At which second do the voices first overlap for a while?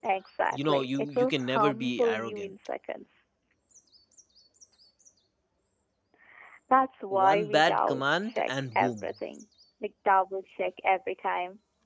0.5 s

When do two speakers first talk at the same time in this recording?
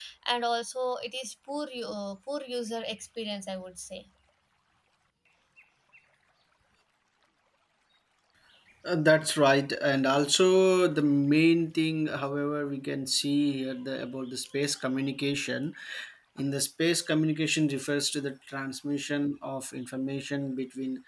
none

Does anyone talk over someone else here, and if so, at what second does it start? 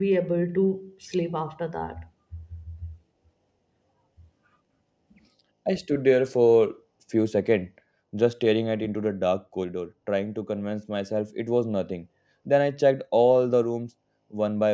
none

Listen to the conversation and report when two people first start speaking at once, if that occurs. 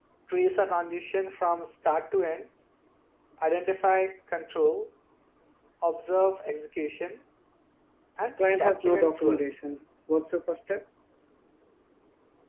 8.2 s

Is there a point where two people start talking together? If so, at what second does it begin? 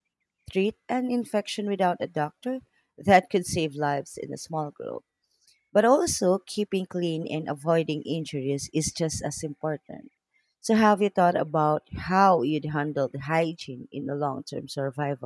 none

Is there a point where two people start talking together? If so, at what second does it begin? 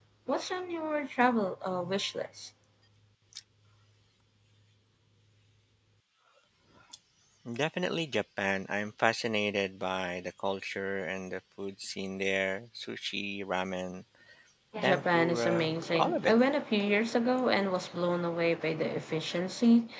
14.8 s

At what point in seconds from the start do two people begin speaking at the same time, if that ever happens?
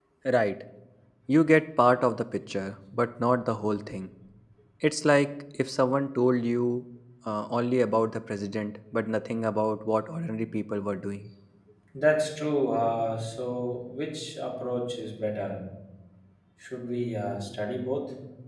none

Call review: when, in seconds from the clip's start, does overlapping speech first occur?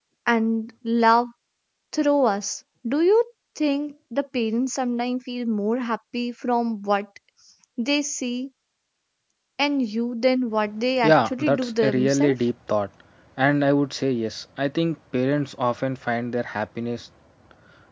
11.0 s

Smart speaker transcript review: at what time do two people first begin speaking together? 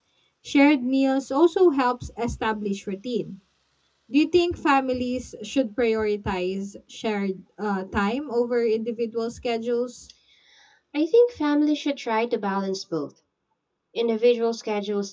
none

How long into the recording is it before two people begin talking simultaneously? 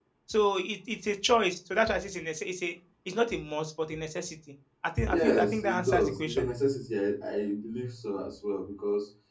5.0 s

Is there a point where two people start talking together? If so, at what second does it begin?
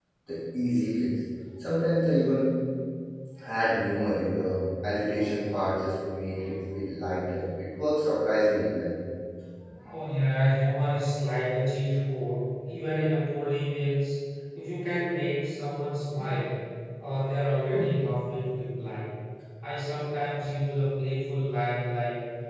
none

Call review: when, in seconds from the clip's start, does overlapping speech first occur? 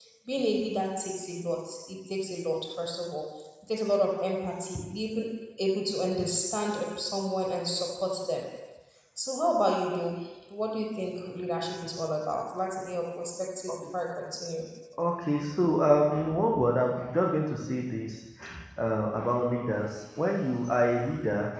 none

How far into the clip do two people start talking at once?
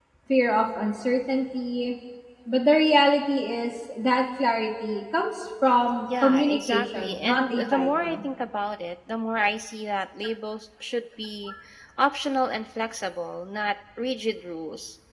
6.1 s

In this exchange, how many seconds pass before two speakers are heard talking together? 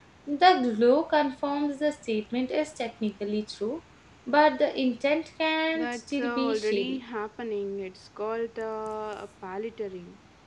5.7 s

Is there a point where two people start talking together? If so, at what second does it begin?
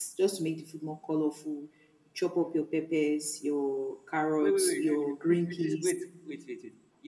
4.4 s

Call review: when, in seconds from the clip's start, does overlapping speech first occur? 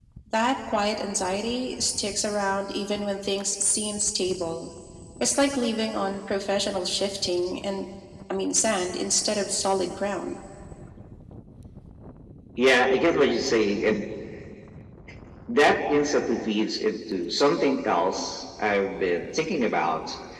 none

